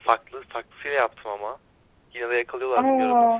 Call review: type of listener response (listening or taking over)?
listening